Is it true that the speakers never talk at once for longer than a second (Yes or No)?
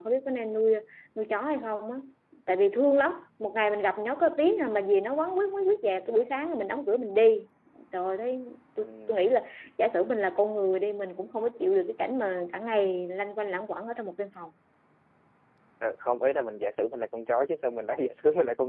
Yes